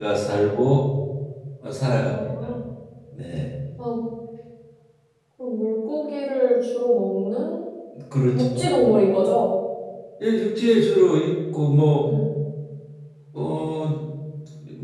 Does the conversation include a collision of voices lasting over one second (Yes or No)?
No